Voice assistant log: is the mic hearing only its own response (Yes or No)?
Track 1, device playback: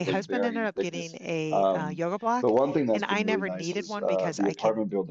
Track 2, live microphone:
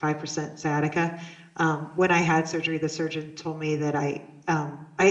No